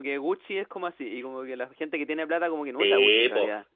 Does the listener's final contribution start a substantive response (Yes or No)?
Yes